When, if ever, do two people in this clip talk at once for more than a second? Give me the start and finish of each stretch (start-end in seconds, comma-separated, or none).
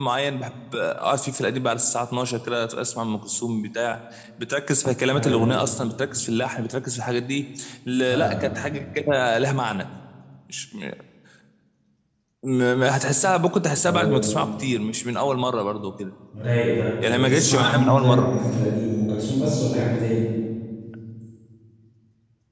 17.1-18.4